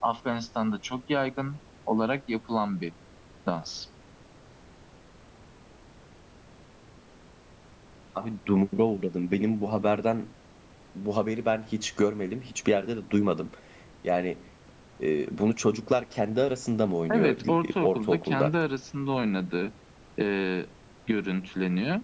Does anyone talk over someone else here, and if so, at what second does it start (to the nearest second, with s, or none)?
17 s